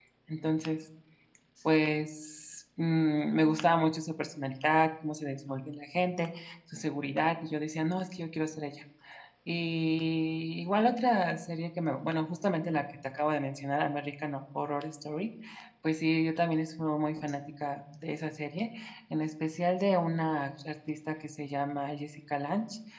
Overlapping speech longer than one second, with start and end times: none

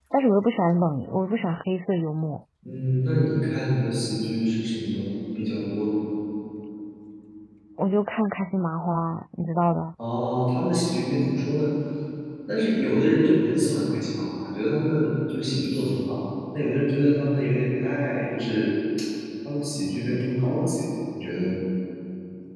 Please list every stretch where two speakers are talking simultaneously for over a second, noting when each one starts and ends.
none

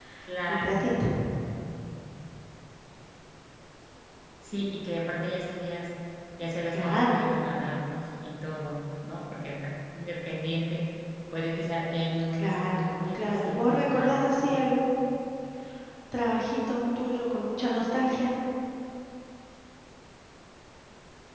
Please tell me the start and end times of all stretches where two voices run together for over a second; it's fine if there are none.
12.3-14.6

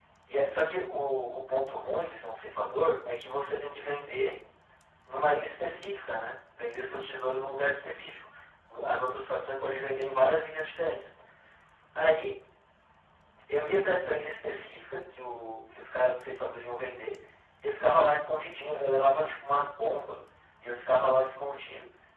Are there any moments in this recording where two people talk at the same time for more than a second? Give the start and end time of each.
none

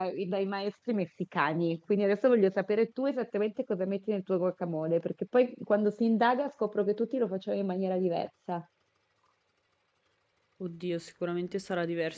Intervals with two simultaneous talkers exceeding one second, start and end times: none

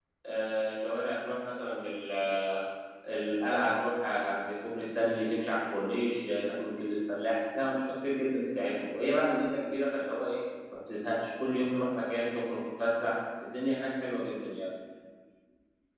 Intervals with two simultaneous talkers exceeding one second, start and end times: none

